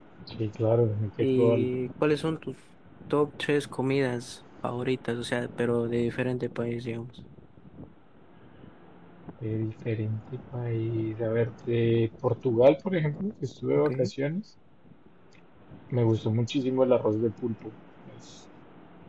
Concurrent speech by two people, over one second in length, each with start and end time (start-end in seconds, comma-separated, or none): none